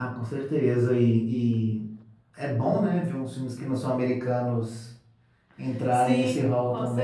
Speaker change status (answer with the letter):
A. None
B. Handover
B